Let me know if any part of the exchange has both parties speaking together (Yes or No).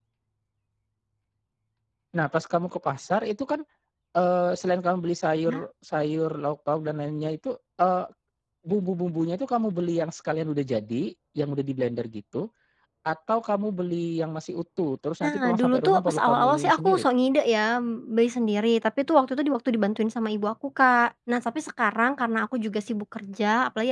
Yes